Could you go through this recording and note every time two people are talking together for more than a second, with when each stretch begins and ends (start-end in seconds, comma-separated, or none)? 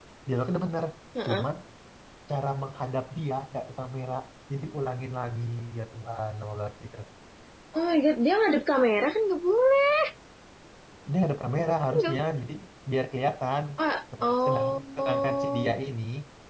14.2-15.7